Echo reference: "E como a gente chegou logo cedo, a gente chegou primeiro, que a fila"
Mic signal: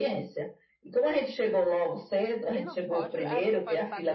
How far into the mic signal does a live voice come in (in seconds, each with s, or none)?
2.5 s